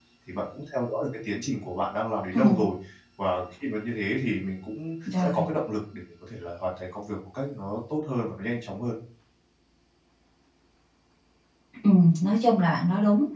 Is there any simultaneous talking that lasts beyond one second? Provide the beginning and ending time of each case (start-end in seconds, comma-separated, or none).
none